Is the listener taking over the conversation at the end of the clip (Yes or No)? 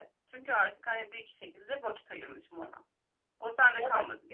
No